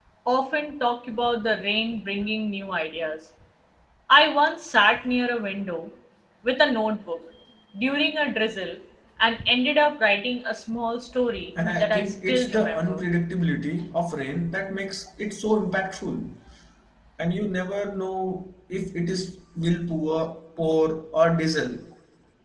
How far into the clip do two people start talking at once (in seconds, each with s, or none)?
11.6 s